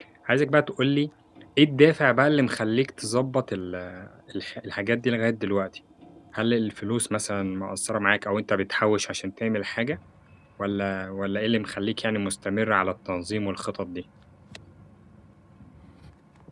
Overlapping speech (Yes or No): No